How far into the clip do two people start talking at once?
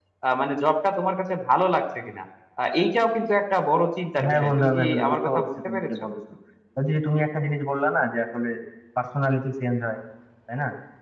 4.2 s

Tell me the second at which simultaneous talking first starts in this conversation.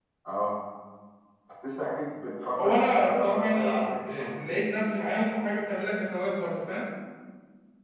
2.5 s

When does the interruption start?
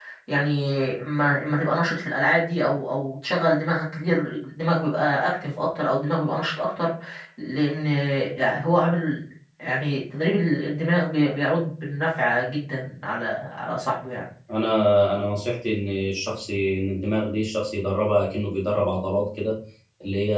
none

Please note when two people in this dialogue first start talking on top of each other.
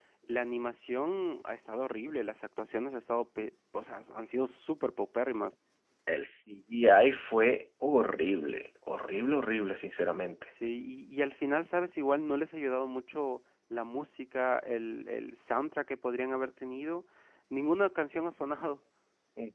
none

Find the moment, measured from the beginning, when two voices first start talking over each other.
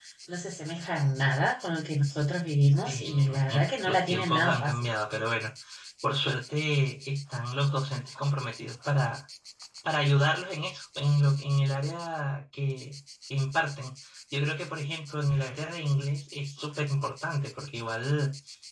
2.9 s

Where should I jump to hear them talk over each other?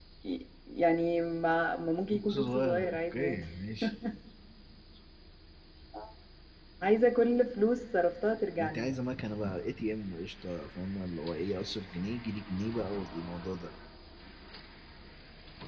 2.1 s

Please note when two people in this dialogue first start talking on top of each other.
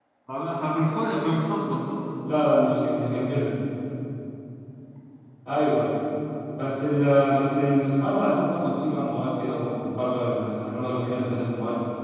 none

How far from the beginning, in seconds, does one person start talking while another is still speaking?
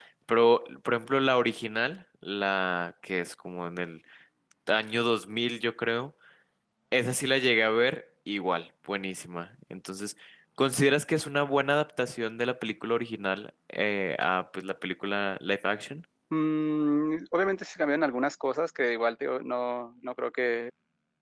none

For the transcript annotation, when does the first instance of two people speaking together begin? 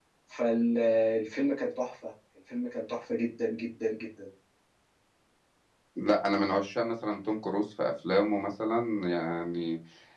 none

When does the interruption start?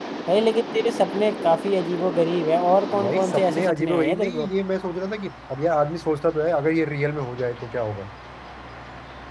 2.9 s

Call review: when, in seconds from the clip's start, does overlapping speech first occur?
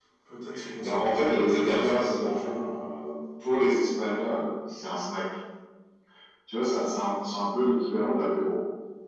0.8 s

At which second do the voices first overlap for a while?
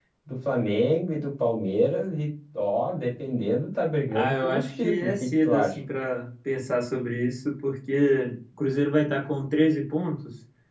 4.1 s

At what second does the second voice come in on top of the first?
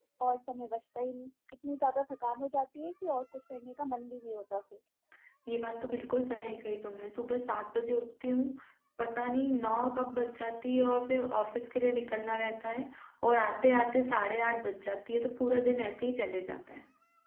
none

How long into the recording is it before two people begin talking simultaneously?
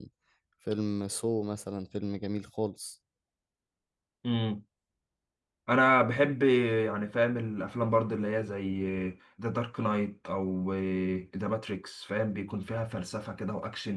none

